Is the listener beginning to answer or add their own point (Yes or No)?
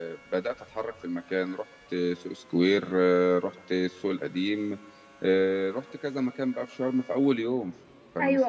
No